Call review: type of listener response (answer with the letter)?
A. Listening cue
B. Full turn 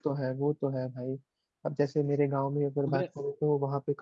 A